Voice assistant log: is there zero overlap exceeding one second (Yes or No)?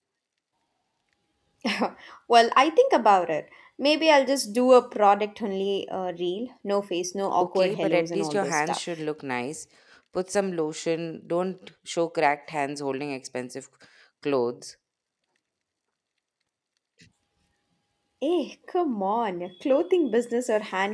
No